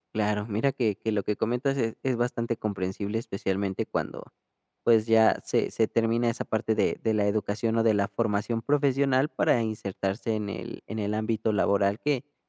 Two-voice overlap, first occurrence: none

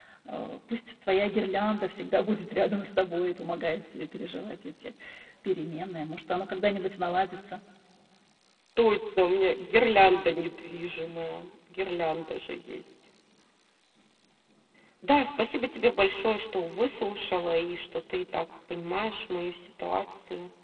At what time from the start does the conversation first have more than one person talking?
none

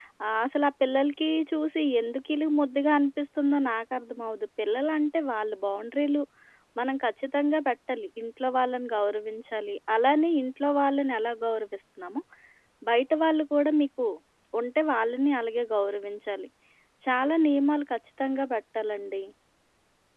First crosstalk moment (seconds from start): none

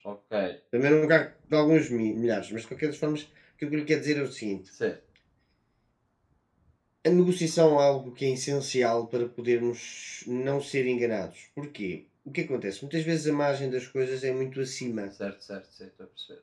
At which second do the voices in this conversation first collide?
none

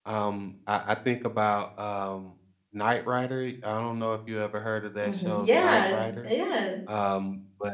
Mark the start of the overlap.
5 s

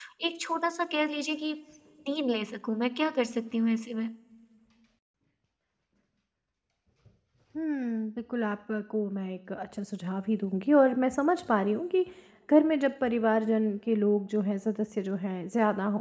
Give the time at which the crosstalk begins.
none

